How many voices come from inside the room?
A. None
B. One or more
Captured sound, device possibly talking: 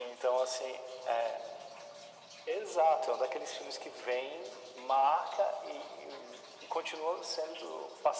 A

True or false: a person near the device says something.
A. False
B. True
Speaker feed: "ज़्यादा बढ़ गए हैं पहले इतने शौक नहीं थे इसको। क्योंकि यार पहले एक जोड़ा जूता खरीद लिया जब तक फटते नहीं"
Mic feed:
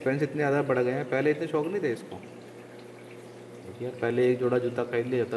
A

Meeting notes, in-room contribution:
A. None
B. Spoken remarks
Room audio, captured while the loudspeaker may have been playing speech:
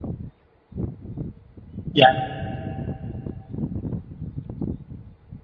B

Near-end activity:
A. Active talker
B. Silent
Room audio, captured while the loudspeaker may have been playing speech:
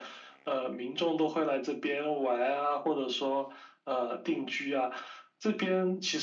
B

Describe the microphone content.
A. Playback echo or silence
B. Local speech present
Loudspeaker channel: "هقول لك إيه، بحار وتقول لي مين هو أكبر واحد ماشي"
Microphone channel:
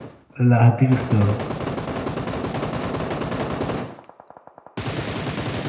B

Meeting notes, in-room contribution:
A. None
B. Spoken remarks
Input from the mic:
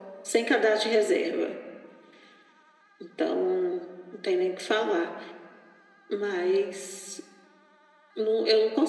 A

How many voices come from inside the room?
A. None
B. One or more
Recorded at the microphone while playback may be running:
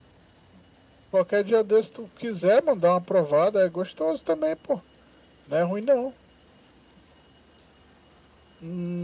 A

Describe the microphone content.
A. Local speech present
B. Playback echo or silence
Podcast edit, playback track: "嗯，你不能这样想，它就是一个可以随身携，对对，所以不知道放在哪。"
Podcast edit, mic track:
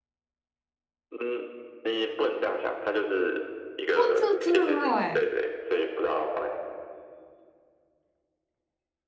A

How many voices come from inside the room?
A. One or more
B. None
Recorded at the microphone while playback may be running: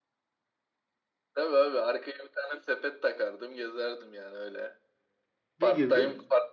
A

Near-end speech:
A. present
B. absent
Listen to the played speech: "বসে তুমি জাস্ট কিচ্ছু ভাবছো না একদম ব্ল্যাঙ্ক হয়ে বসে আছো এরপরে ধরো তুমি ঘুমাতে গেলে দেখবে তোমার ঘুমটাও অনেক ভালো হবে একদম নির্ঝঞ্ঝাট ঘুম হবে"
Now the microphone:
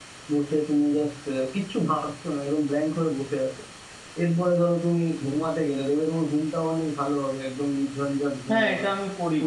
A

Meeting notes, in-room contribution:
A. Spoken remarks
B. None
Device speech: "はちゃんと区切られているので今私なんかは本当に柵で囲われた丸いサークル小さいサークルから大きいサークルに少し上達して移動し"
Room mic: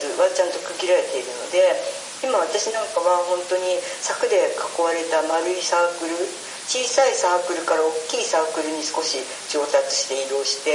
B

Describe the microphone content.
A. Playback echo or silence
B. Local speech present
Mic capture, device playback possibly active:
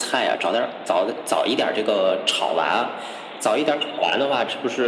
A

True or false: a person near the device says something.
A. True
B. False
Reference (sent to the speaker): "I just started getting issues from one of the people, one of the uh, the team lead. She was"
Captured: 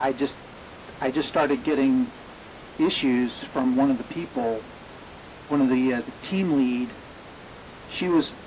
B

